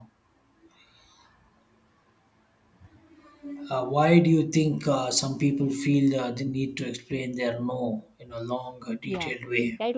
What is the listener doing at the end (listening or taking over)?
taking over